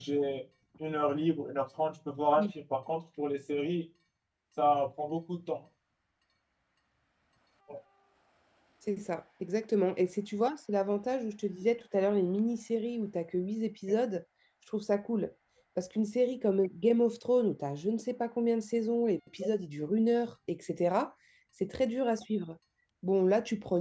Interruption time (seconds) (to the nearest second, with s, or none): none